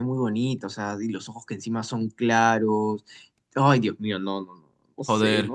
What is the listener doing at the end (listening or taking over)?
taking over